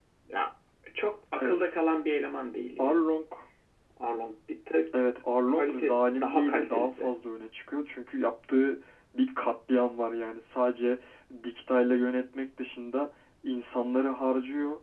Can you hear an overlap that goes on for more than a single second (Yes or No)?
Yes